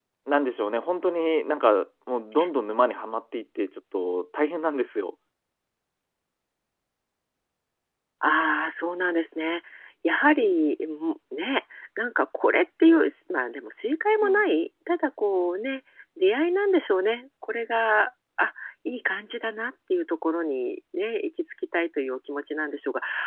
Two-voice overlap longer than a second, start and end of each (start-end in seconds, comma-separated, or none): none